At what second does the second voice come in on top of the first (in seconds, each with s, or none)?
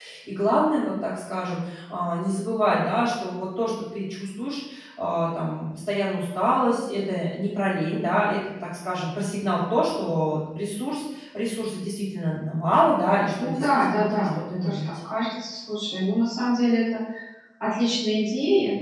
13.4 s